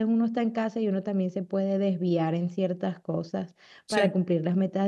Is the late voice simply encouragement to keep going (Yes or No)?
Yes